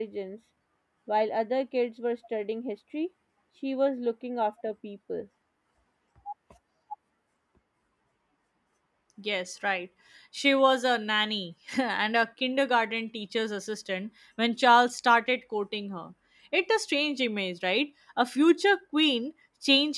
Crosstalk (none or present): none